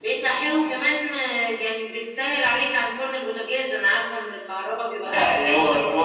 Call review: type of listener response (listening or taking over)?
taking over